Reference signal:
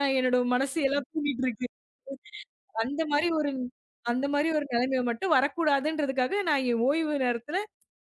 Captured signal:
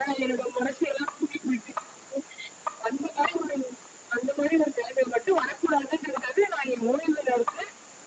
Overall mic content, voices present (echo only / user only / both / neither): echo only